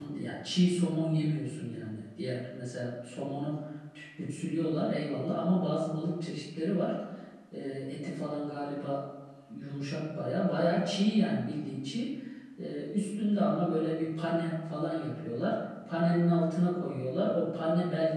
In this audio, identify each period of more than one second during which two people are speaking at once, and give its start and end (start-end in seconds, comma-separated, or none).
none